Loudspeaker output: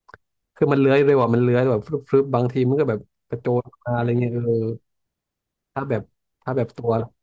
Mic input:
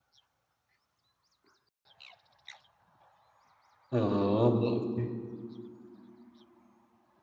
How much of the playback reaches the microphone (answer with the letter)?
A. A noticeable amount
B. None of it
B